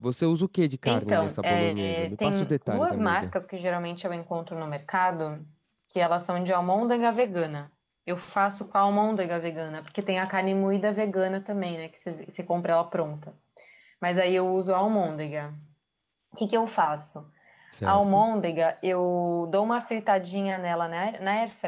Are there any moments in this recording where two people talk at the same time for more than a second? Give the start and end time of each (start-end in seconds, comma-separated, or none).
0.8-3.3